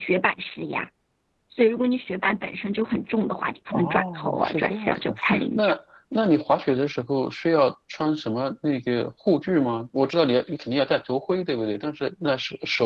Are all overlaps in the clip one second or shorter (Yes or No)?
No